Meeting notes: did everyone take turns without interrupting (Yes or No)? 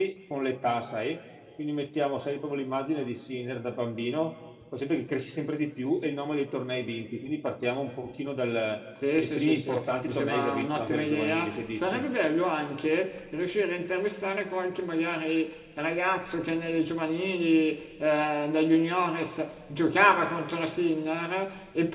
No